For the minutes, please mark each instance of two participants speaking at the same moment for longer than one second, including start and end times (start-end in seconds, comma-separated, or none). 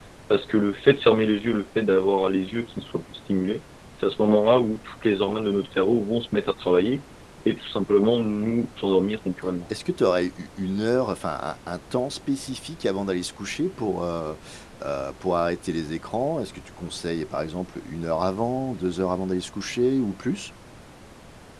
none